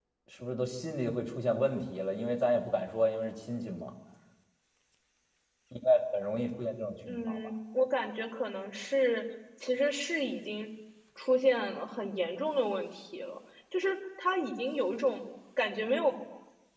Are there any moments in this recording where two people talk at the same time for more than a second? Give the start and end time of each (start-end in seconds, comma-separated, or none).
none